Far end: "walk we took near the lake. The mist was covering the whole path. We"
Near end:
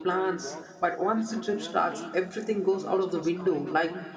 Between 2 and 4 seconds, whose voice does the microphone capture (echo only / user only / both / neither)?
both